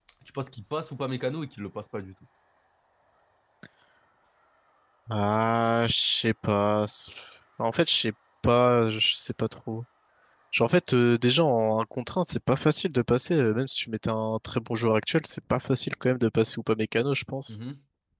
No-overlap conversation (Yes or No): Yes